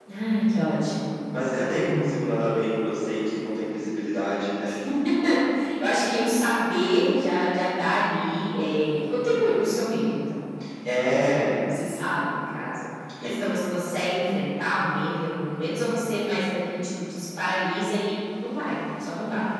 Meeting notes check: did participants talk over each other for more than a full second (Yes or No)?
No